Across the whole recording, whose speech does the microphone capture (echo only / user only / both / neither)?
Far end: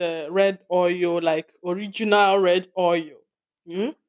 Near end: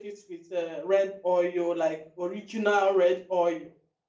echo only